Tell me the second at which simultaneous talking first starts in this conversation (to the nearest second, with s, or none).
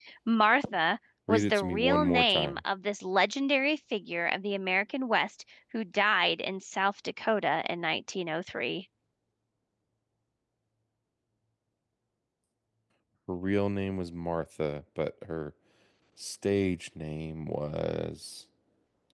1 s